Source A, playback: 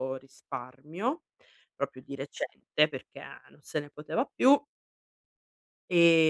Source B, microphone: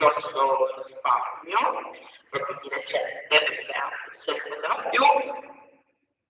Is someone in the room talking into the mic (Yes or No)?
No